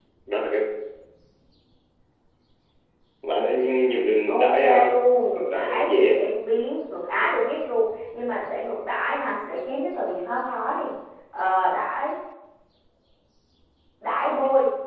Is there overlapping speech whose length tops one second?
Yes, from 4.3 s

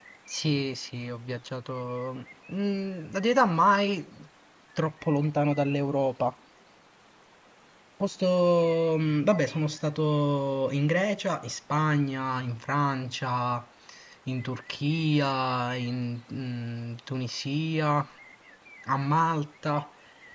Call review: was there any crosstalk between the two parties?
No

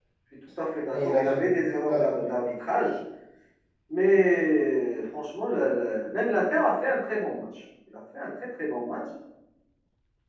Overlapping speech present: Yes, from 0.9 s

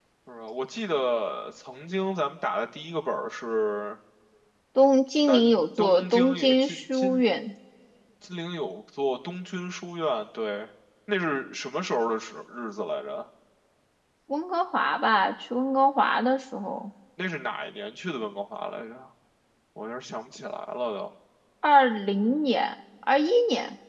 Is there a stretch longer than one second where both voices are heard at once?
Yes, from 5.2 s

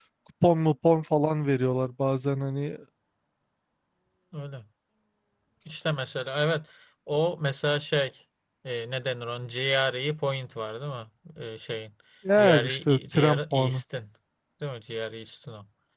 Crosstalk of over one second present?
Yes, from 12.4 s

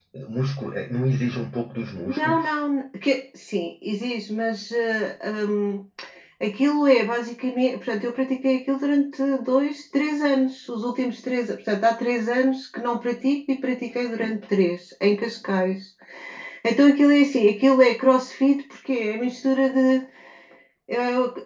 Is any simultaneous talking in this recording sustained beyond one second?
No

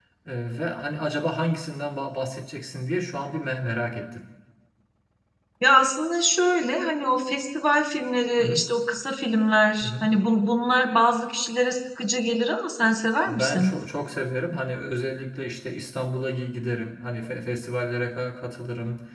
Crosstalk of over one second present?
No

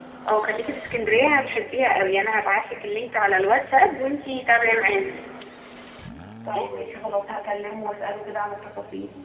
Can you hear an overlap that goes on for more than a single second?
No

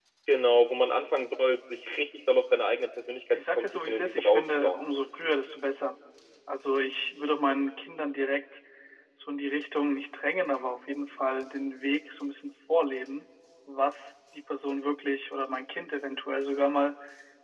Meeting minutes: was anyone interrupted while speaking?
Yes, from 3.3 s

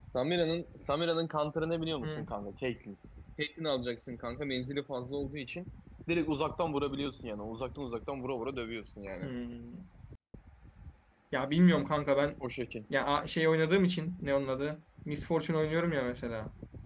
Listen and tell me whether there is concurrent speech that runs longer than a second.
No

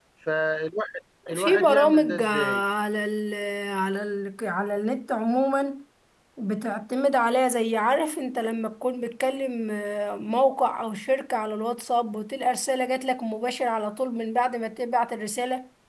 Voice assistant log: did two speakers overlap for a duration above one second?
Yes, from 1.3 s

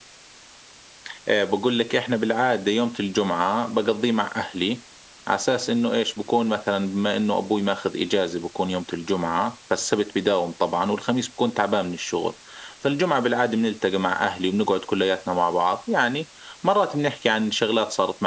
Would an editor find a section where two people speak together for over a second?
No

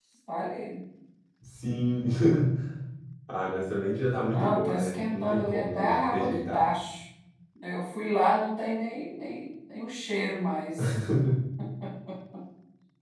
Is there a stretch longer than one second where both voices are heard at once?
Yes, from 4.2 s

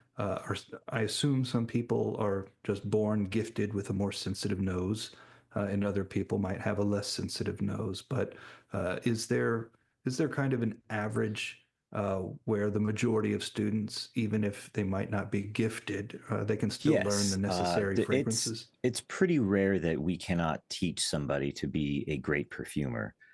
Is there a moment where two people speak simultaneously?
Yes, from 16.8 s

